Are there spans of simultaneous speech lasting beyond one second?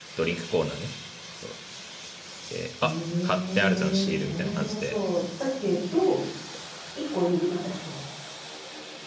Yes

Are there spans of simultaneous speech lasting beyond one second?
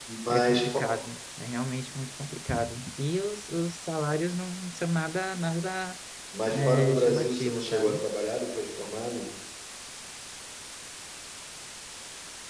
Yes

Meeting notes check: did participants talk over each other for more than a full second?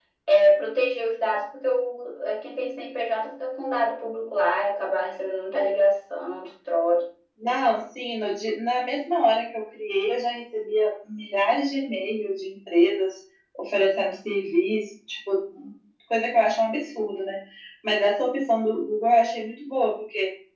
No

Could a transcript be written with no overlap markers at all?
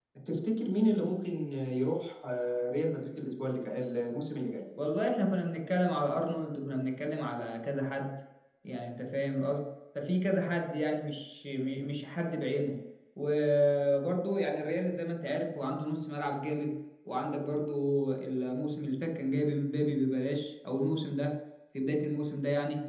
Yes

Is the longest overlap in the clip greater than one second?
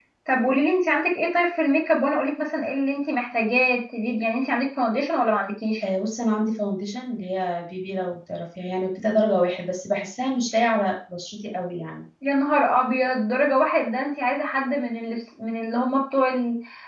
No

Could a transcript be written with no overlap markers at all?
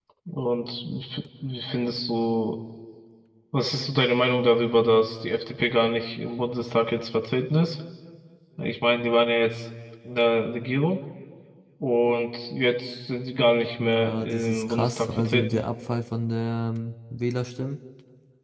No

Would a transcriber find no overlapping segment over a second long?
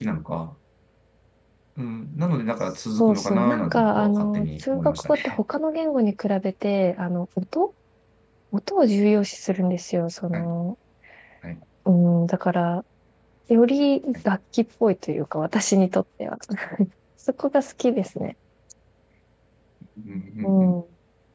No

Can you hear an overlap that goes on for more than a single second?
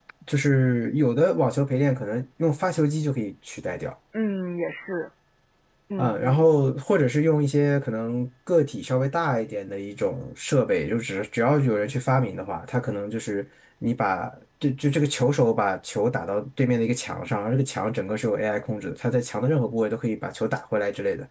No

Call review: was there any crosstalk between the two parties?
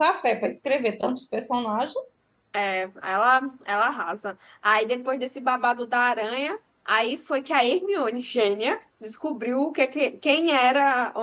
No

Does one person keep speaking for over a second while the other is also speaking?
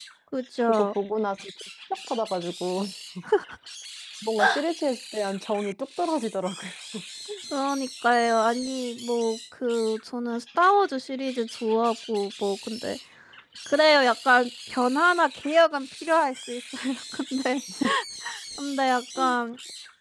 No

